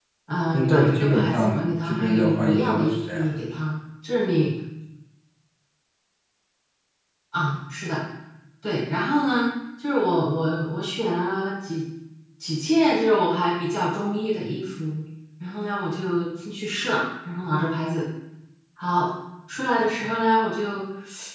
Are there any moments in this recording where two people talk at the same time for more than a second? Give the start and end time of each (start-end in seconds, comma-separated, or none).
0.5-3.3